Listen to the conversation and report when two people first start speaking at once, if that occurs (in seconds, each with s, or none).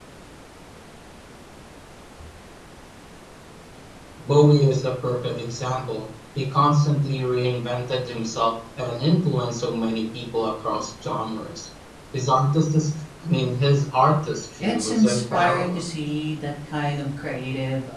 14.6 s